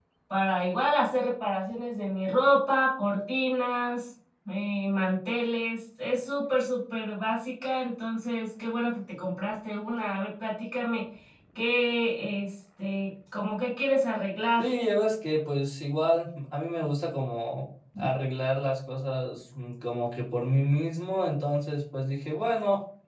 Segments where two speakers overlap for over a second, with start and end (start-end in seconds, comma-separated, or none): none